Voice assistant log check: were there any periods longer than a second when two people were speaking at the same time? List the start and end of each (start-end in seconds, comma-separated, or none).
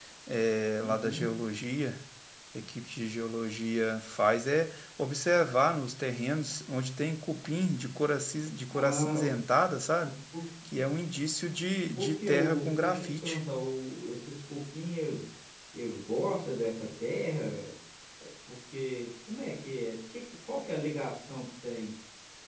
12.0-13.4